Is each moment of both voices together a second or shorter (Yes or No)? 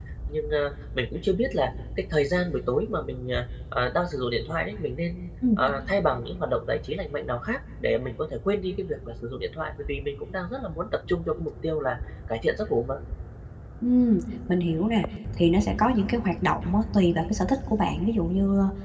Yes